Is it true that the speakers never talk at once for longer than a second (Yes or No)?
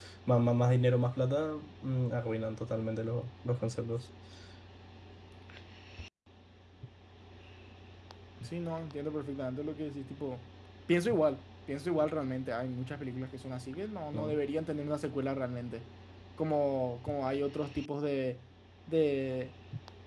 Yes